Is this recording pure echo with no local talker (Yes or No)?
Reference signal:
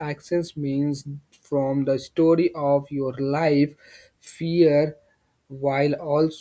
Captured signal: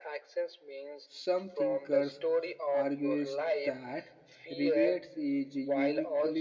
No